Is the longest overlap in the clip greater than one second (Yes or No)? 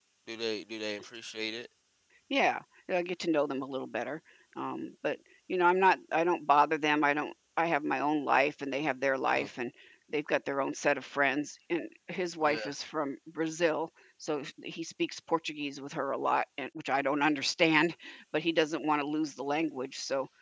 No